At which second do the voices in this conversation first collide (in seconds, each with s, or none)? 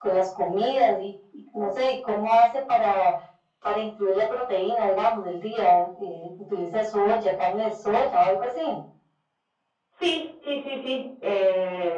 none